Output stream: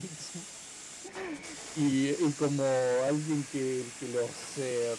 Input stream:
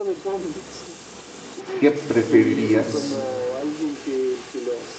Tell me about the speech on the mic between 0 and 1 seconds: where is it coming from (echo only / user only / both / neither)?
echo only